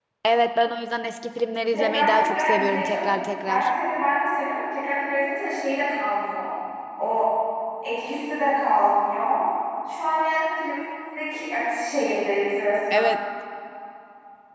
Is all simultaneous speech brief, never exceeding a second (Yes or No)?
No